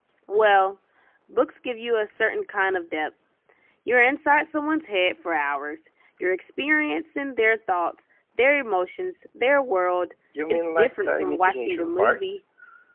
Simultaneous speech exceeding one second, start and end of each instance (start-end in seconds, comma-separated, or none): 10.5-12.2